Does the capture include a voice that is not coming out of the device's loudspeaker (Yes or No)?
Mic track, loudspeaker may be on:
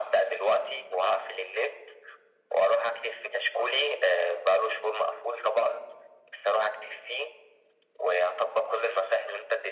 No